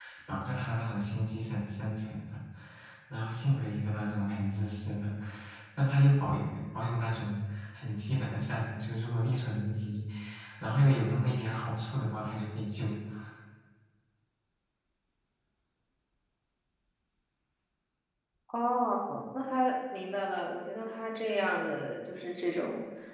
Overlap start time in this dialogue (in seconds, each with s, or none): none